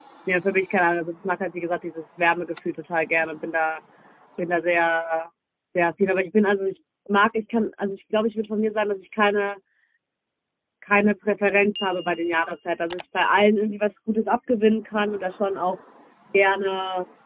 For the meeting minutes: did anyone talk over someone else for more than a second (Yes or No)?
No